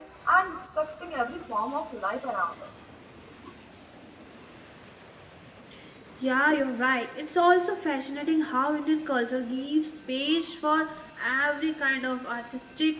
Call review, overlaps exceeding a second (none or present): none